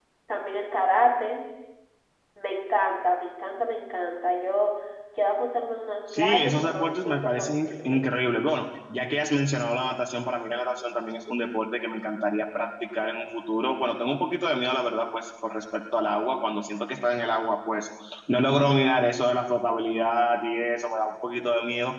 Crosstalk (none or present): present